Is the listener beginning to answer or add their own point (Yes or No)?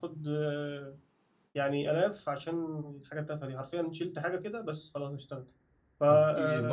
Yes